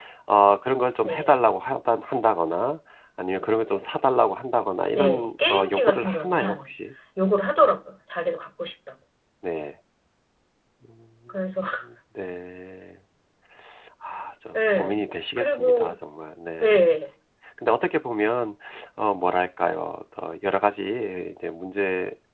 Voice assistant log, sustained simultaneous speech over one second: present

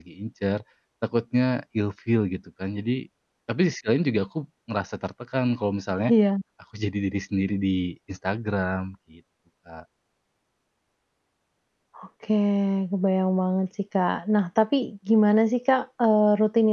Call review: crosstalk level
none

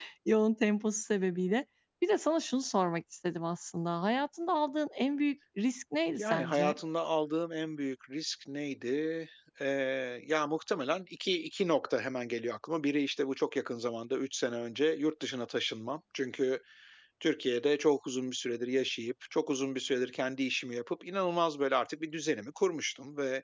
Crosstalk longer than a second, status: none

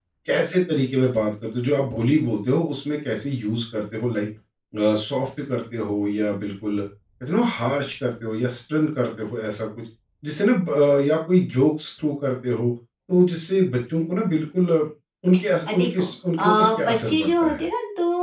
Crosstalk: present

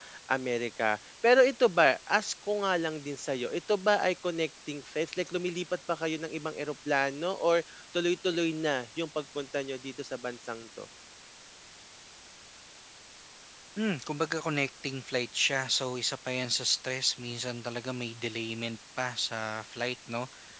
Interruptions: none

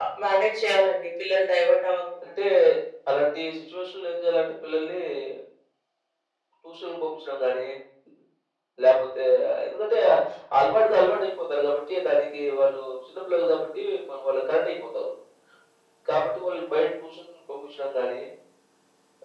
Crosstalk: none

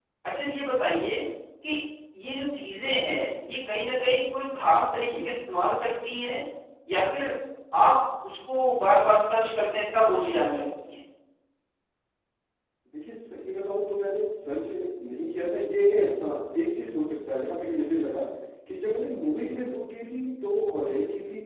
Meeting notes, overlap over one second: none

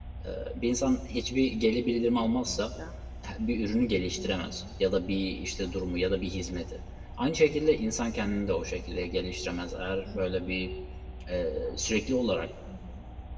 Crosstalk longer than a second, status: none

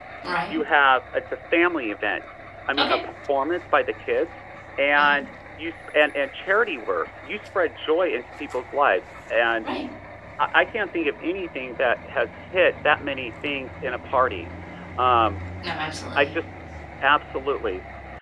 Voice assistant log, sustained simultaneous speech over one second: none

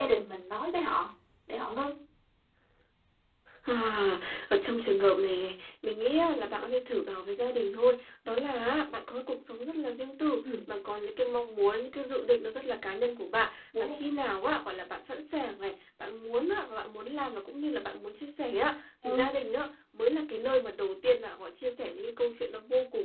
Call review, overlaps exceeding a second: none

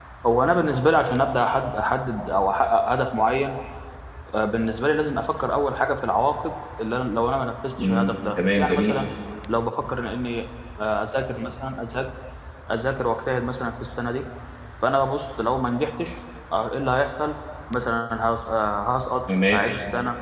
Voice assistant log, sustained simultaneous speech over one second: present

